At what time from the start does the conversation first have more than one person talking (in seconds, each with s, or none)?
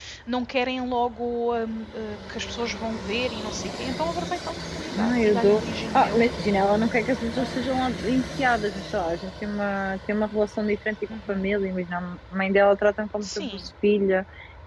4.9 s